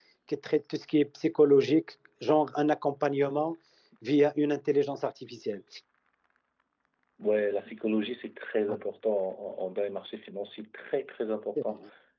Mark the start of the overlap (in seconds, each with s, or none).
none